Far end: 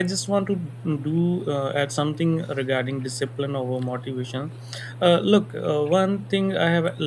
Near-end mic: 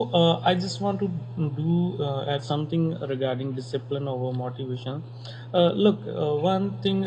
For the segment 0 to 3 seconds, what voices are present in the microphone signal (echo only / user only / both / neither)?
echo only